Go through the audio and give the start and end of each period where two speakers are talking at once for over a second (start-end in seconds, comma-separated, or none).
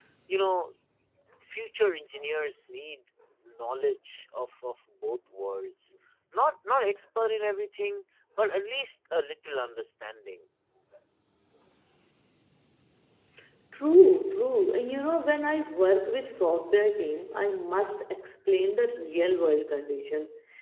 none